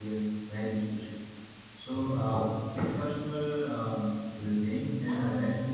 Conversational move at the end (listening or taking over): taking over